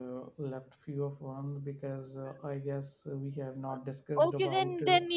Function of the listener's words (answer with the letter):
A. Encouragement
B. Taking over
B